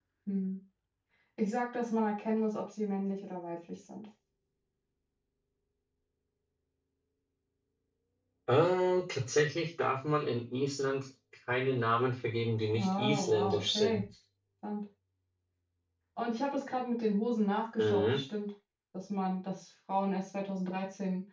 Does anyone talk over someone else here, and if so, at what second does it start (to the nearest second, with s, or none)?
13 s